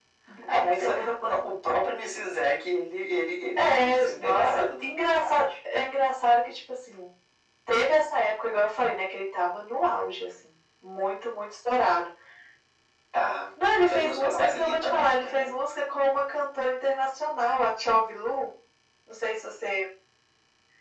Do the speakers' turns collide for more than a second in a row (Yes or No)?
Yes